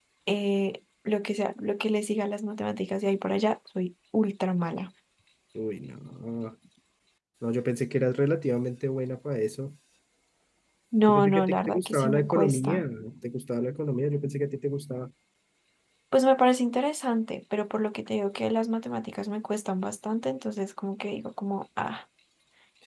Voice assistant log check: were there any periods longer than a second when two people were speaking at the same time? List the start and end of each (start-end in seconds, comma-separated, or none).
11.1-12.8